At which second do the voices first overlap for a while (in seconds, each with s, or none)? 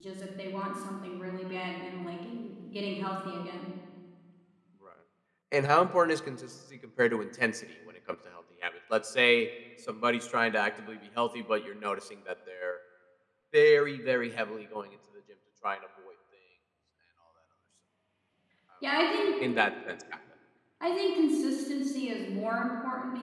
none